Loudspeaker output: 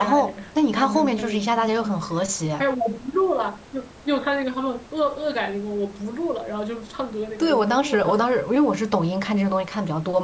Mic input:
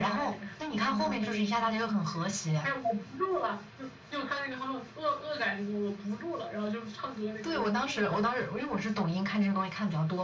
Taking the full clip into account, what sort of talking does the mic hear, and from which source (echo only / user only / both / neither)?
echo only